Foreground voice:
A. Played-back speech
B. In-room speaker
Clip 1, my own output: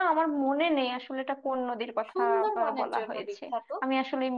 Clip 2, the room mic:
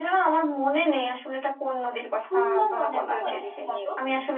A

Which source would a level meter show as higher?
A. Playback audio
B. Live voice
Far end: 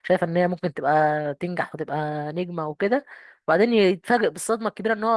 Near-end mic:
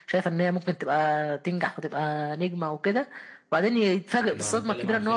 A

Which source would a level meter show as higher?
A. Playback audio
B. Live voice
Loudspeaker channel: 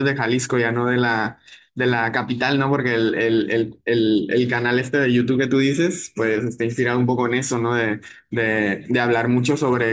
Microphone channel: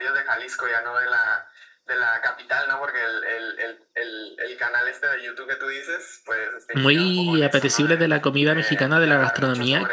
B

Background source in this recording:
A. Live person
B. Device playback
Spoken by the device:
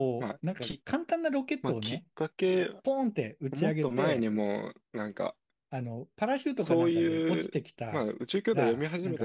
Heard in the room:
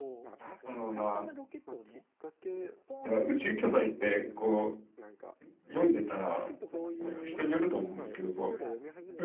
B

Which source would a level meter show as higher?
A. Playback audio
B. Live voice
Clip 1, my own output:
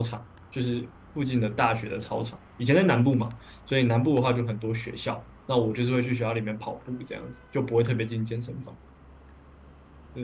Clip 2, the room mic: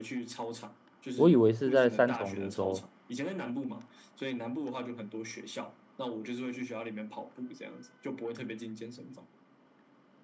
B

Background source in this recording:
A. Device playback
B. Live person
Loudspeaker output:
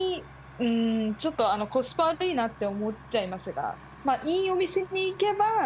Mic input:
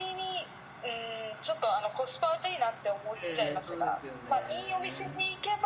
B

